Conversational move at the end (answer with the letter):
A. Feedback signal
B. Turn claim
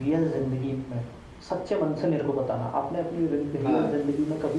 A